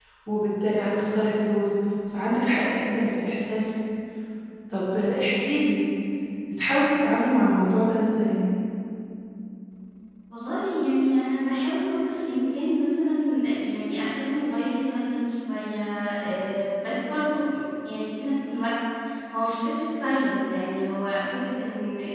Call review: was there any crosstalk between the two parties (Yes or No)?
No